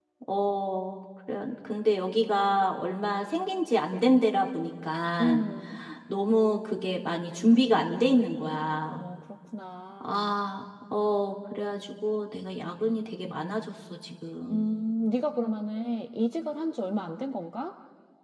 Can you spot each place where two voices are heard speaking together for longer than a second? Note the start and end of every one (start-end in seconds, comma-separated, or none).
none